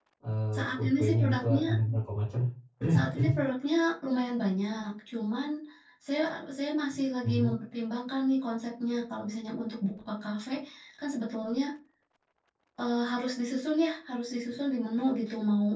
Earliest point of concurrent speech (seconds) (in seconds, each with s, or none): 0.6 s